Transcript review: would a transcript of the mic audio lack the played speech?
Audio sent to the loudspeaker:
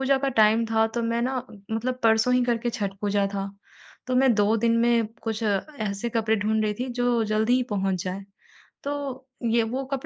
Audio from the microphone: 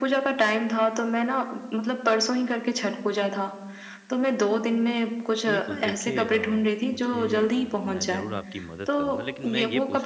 No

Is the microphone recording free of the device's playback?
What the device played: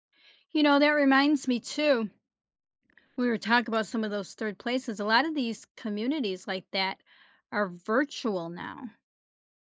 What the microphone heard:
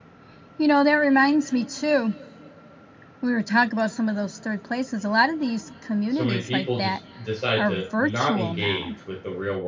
No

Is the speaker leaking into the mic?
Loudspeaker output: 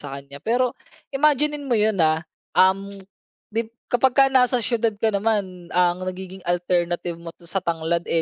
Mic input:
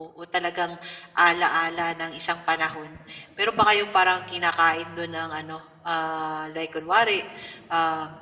No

